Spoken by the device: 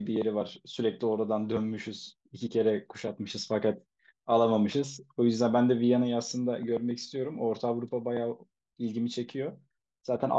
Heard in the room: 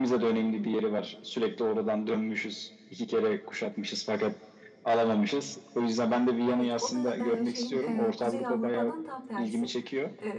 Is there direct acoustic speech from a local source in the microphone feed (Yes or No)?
Yes